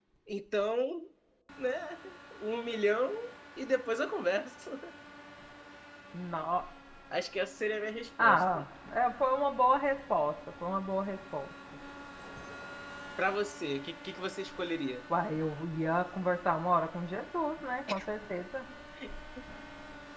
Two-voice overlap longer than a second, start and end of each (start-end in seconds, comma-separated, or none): none